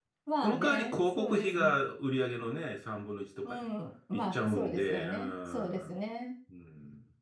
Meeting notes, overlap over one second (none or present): present